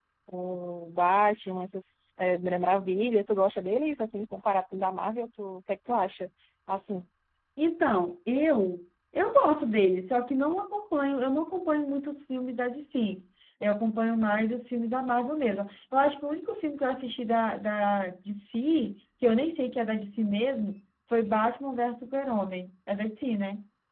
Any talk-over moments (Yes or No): No